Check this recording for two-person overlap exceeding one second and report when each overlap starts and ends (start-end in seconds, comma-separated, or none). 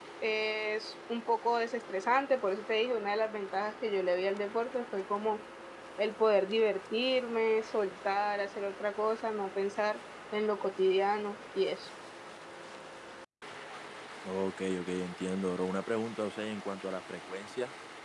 none